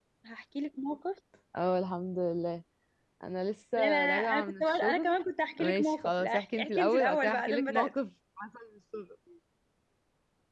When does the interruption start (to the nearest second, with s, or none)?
4 s